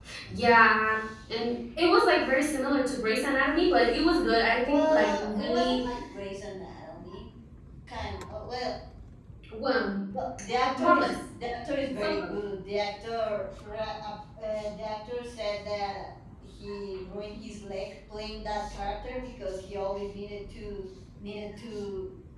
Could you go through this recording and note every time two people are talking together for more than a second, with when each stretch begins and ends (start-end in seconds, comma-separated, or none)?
4.5-5.8